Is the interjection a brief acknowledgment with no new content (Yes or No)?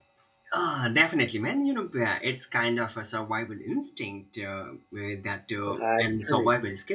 Yes